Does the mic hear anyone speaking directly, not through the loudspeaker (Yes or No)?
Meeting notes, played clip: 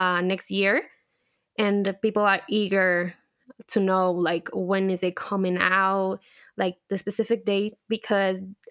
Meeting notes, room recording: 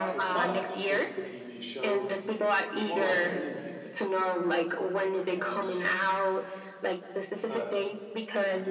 Yes